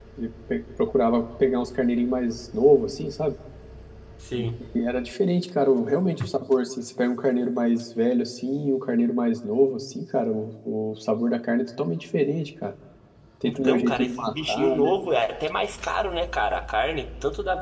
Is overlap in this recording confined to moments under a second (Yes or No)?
No